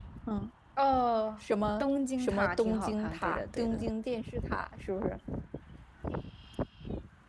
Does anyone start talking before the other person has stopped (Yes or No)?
Yes